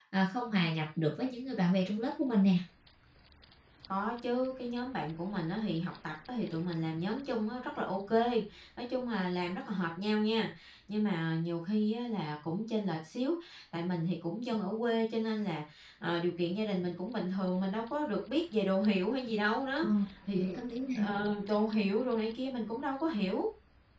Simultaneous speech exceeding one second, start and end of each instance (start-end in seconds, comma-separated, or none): none